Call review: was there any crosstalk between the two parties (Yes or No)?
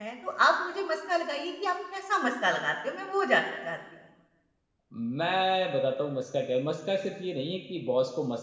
No